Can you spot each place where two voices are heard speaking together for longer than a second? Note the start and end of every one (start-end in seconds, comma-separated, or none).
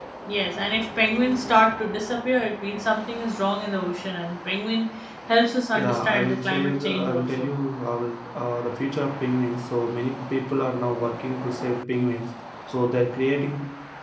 5.8-7.5